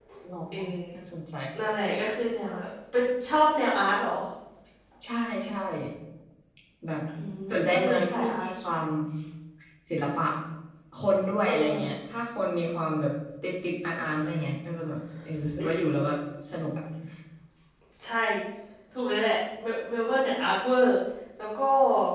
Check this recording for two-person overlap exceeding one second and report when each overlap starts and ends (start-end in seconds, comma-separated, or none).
7.5-8.7